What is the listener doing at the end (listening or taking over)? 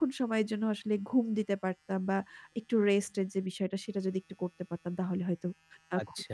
taking over